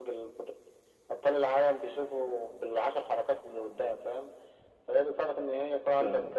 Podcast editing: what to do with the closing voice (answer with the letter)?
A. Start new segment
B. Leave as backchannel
B